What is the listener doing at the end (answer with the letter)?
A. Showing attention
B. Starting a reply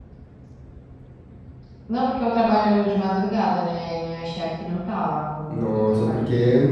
B